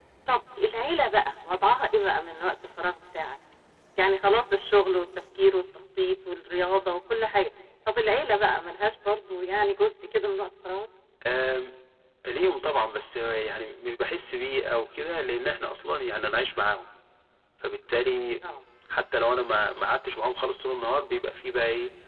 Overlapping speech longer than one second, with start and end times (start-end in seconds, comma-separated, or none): none